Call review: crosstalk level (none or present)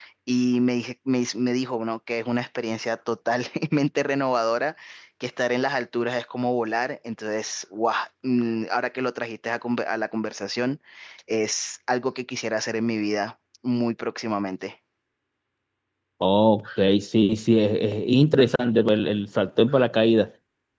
none